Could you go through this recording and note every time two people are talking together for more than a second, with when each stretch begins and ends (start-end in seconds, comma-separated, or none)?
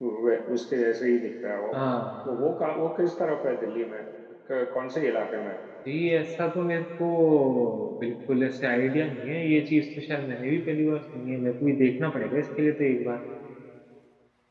none